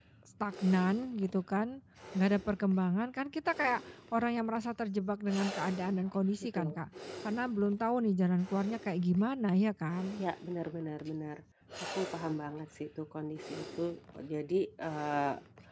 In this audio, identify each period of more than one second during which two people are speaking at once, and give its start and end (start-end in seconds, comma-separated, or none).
none